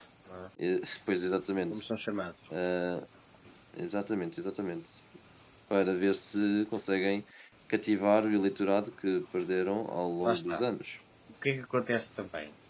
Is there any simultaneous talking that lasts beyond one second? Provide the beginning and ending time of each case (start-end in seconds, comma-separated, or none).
none